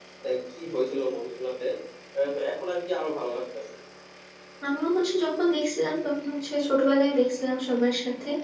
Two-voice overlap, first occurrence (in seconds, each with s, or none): none